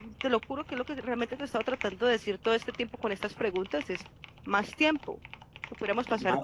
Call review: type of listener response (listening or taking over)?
taking over